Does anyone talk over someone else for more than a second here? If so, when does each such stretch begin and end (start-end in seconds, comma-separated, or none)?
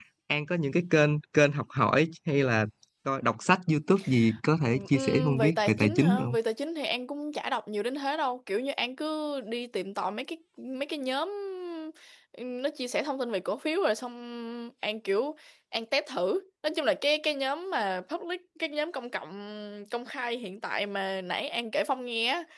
4.9-6.4